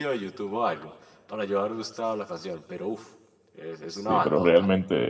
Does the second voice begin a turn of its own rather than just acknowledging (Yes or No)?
Yes